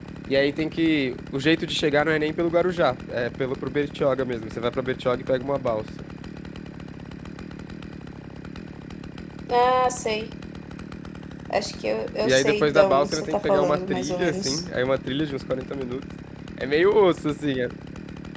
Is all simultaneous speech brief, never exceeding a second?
No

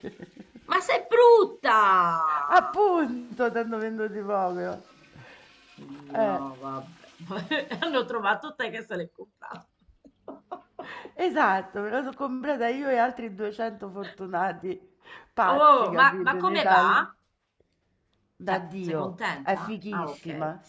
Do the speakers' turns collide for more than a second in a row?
Yes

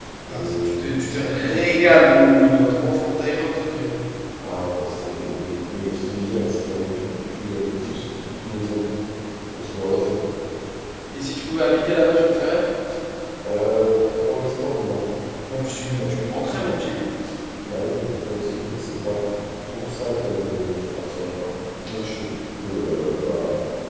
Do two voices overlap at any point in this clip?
Yes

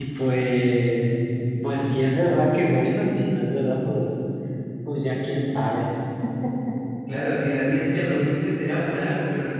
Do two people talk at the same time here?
No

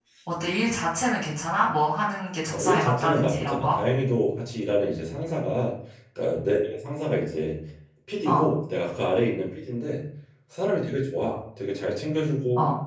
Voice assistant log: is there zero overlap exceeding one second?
No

